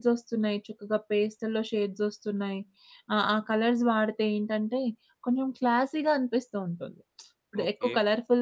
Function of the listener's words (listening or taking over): listening